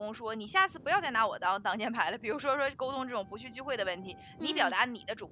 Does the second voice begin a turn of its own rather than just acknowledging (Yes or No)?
No